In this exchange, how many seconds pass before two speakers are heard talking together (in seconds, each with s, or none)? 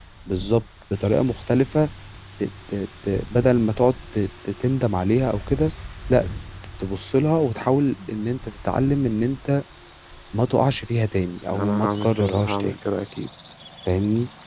11.5 s